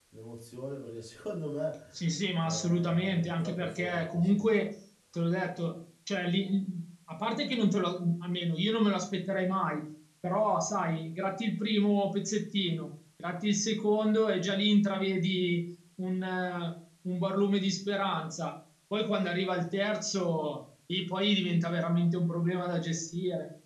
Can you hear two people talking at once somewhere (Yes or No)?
Yes